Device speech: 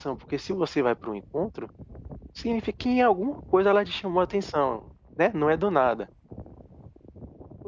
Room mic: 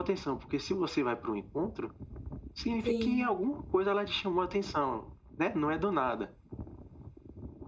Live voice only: Sim.

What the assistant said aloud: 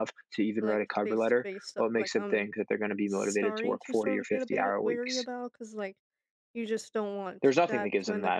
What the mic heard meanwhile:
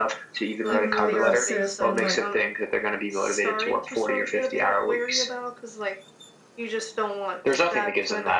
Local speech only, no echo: even though they're a citizen, like

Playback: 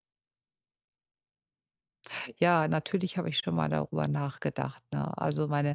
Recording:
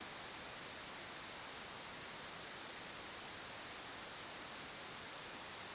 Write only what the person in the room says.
none

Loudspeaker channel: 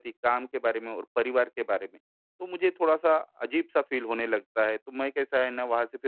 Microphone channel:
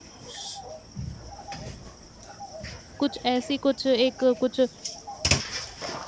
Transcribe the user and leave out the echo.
कुछ ऐसी कुछ एक कुछ

